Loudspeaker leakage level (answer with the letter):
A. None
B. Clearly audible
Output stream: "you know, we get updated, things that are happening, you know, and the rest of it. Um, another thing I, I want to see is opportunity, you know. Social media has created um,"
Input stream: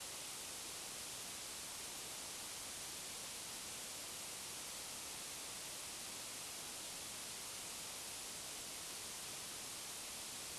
A